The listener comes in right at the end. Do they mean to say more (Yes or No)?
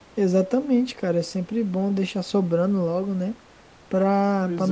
No